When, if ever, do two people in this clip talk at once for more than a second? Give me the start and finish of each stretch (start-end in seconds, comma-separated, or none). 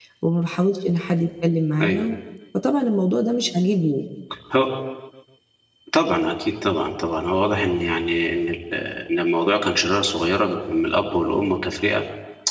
none